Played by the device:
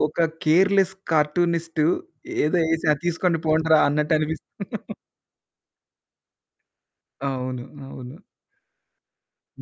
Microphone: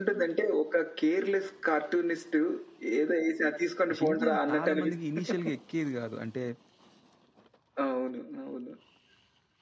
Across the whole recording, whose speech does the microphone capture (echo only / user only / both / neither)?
both